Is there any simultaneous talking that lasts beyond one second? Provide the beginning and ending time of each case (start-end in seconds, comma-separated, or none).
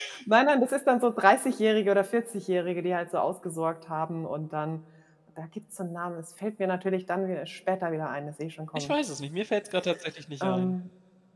none